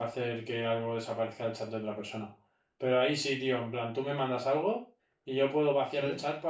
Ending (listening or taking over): listening